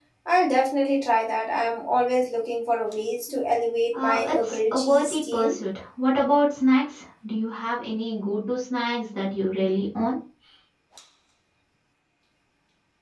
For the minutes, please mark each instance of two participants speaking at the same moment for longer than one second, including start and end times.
3.9-5.5

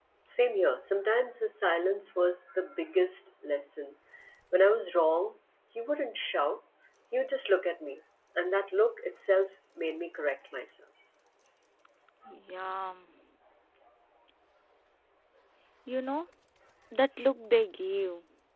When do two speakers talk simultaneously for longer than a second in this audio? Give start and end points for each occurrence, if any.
none

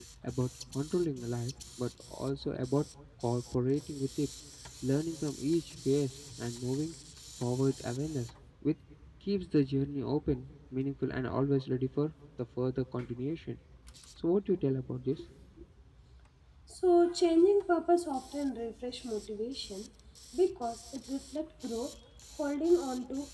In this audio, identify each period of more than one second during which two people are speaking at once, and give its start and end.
none

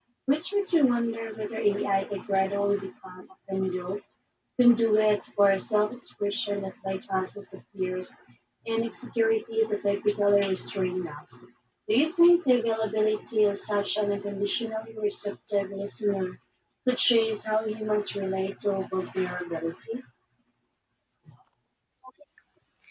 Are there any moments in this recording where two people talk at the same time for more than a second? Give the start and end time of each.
none

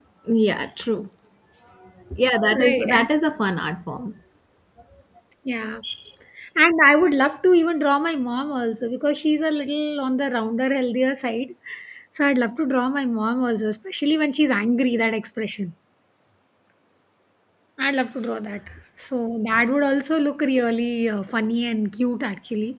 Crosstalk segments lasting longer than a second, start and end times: none

